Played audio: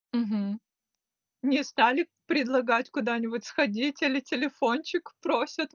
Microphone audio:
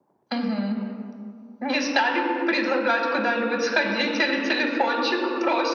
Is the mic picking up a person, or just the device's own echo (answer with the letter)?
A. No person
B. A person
A